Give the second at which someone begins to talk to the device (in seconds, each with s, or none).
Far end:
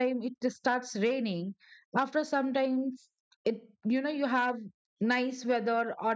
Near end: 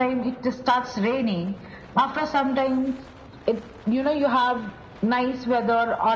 none